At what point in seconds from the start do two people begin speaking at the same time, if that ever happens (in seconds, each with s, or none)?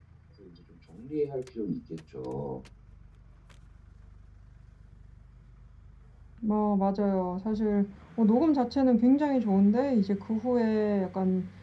none